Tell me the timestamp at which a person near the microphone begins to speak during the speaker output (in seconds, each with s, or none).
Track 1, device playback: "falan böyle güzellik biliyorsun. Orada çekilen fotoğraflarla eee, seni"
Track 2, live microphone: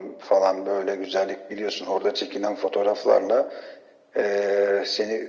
none